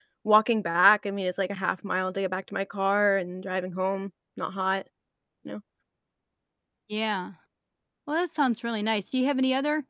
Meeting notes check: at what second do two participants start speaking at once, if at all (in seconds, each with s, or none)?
none